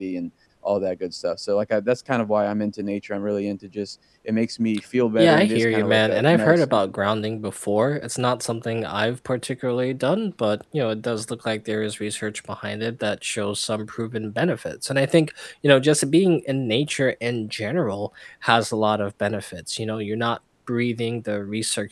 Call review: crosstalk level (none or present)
present